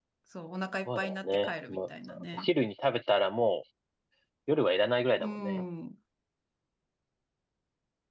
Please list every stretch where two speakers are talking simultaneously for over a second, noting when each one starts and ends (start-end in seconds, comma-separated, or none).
0.9-2.5